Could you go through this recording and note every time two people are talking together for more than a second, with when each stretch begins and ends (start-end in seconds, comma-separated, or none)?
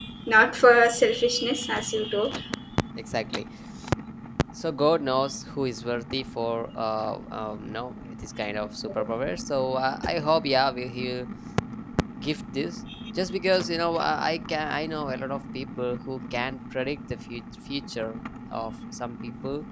none